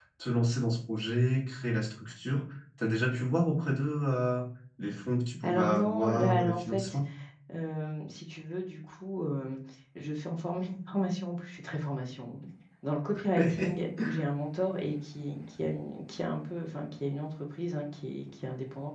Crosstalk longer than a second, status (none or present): present